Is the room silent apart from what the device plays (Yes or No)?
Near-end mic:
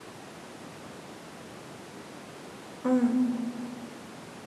No